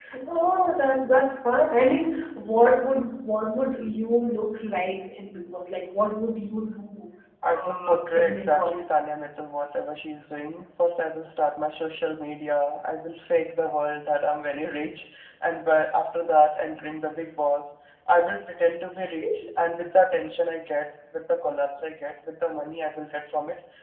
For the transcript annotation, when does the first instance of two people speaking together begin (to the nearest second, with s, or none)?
8 s